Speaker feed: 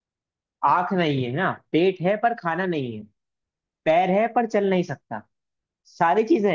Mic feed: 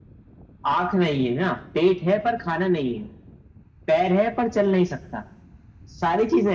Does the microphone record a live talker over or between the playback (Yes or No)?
No